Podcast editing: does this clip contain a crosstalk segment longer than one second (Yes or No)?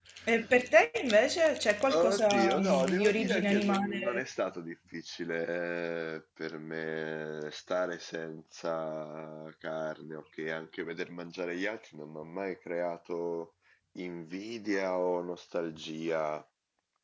Yes